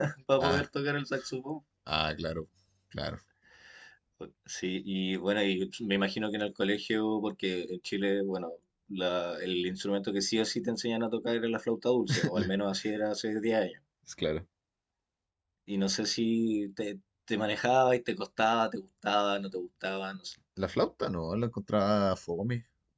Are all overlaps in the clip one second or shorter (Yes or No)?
Yes